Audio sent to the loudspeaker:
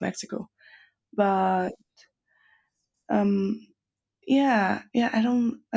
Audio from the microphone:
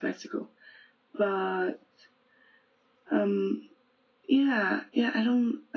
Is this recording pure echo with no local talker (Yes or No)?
Yes